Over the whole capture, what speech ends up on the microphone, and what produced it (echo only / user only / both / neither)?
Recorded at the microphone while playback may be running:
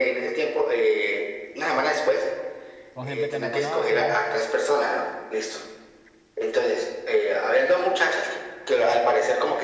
both